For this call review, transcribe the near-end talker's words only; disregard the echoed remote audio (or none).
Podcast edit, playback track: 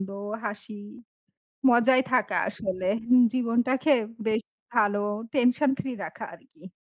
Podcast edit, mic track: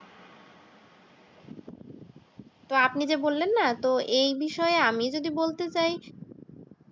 তো আপনি যে বললেন না, তো এই বিষয়ে আমি যদি বলতে চাই,